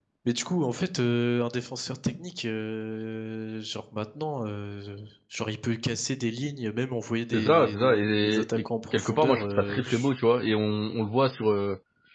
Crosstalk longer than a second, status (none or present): present